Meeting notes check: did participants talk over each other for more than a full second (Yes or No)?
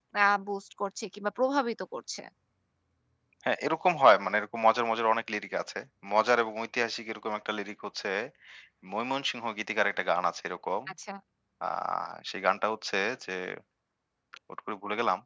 No